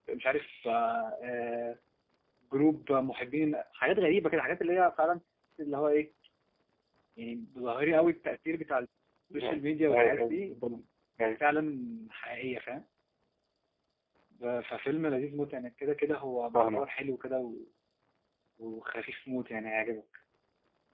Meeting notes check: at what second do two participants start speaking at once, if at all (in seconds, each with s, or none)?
9.3 s